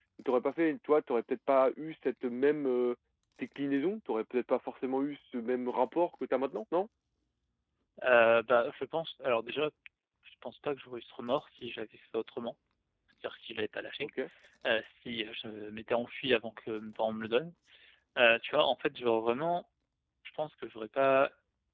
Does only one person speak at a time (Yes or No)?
Yes